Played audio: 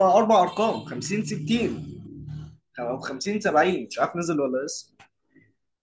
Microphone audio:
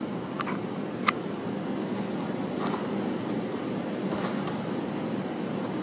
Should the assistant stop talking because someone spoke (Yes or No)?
No